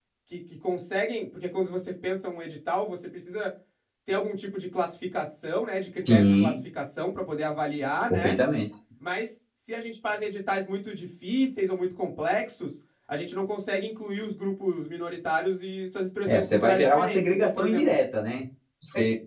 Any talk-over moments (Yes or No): Yes